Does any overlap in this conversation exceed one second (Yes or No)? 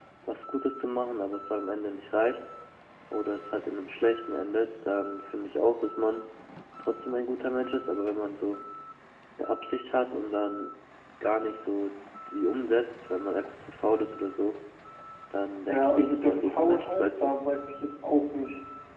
Yes